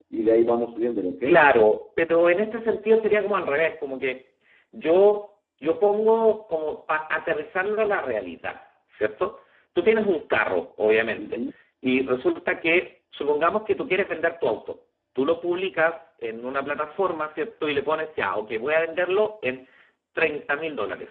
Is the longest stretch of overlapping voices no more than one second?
Yes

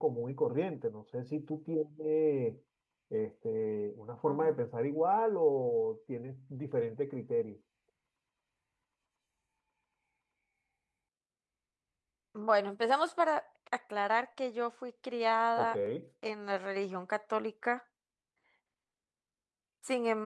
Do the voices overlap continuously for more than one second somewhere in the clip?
No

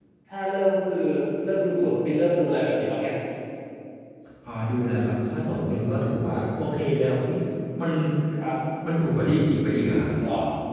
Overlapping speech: No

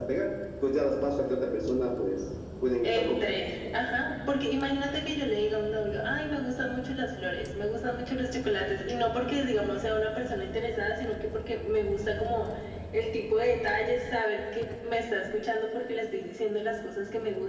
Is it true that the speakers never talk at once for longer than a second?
Yes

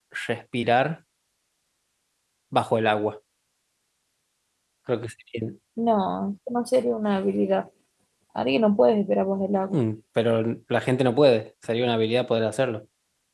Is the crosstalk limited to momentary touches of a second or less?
Yes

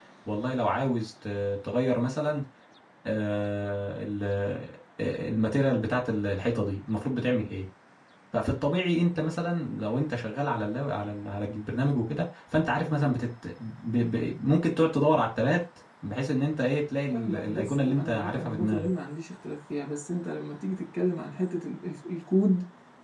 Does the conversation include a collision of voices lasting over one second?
Yes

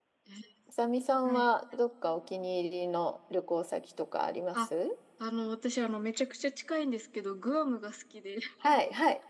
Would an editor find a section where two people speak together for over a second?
No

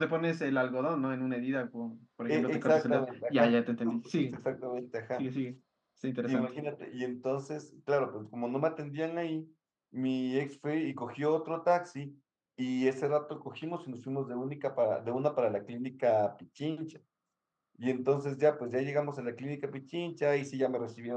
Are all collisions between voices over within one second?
No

